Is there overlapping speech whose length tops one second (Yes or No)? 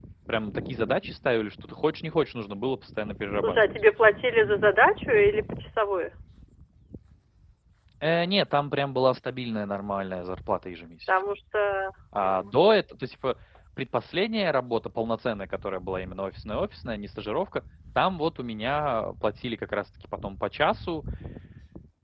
No